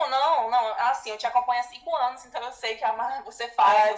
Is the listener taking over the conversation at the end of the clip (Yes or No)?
Yes